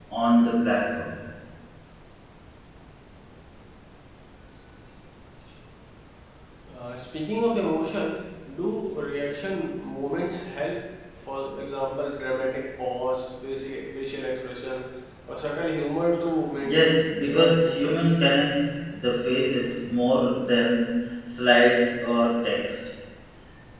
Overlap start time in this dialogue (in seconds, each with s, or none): 16.6 s